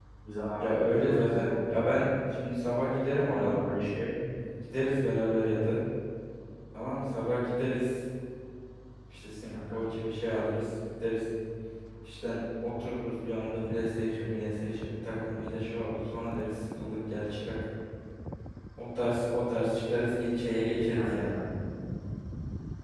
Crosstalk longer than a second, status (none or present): present